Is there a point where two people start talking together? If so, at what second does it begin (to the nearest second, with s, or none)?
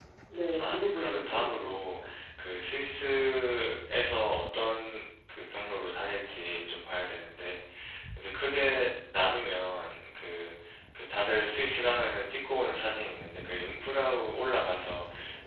1 s